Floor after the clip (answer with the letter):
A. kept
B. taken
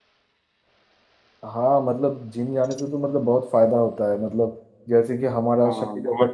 A